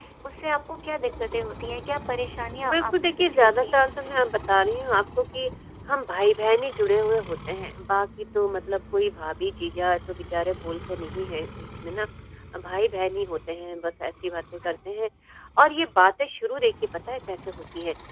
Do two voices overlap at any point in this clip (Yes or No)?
Yes